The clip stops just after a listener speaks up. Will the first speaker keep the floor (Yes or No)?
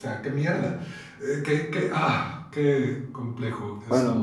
No